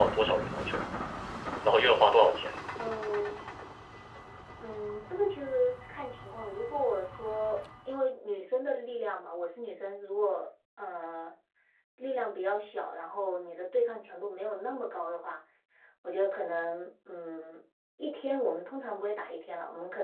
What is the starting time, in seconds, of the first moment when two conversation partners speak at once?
none

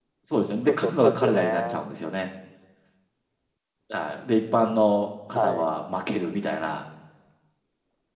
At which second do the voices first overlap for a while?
0.7 s

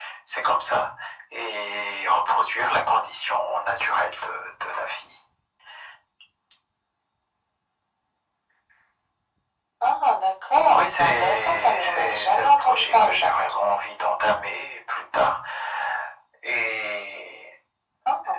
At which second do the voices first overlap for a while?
10.7 s

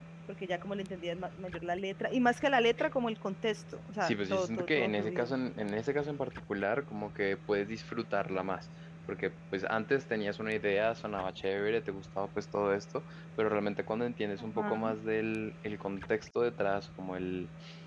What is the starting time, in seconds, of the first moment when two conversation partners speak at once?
4.0 s

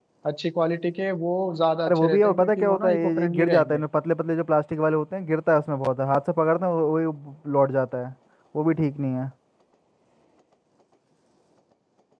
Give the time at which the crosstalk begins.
1.9 s

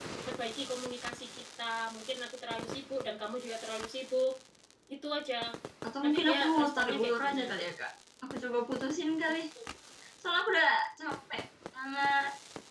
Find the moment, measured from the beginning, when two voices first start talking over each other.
6.0 s

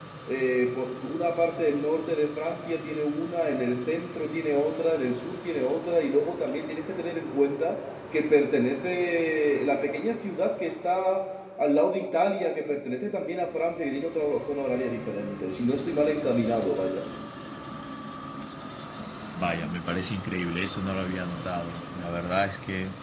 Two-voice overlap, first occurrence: none

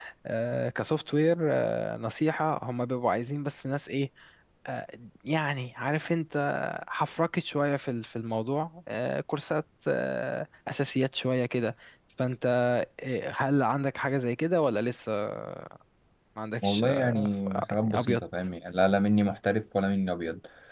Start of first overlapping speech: 16.6 s

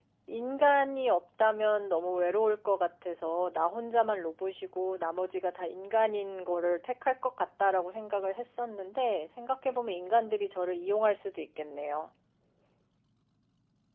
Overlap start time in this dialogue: none

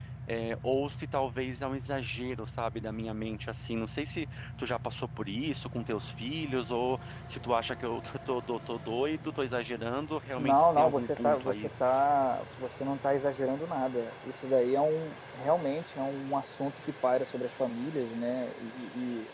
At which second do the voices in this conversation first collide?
10.4 s

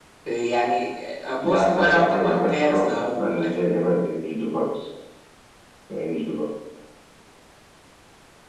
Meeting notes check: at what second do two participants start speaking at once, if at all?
1.4 s

